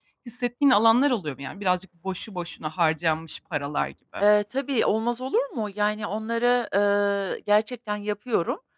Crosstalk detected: No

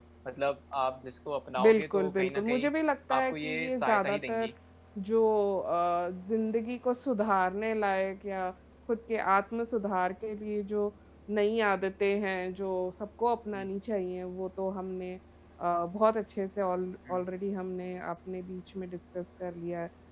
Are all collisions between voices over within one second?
No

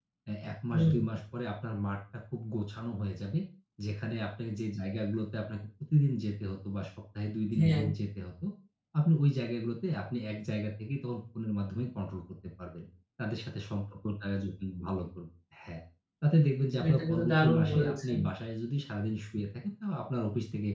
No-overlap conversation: No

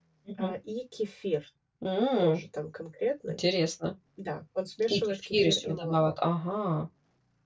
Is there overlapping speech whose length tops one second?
Yes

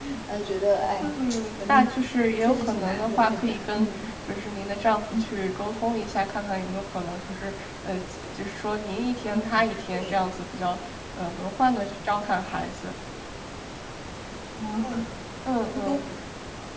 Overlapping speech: Yes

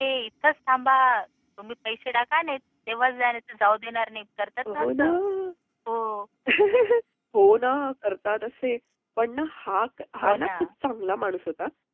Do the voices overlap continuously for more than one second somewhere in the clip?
No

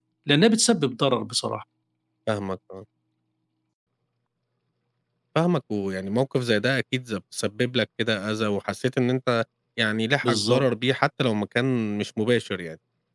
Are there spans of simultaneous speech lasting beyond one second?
No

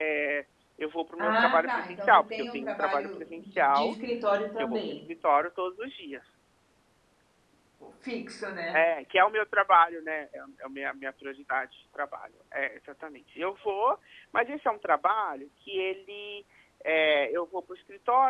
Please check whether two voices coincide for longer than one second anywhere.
Yes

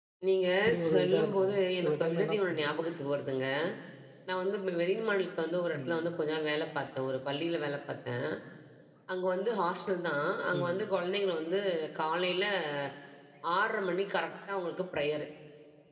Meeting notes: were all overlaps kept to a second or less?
No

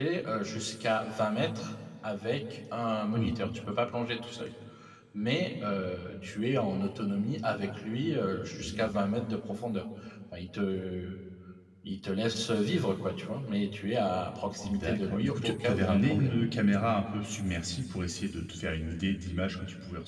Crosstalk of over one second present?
Yes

